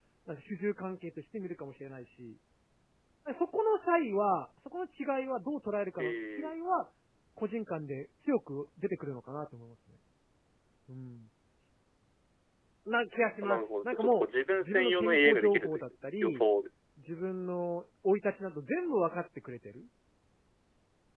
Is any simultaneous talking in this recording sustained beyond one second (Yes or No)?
Yes